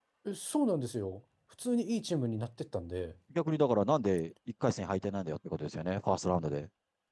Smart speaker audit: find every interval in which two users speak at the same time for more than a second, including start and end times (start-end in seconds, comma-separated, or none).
none